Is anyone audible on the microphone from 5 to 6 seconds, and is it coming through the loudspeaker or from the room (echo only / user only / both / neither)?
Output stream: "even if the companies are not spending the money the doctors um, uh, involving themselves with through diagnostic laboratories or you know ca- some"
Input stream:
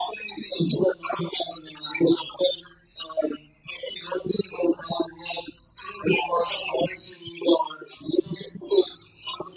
echo only